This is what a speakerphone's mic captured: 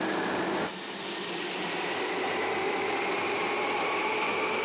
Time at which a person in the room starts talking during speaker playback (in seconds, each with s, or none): none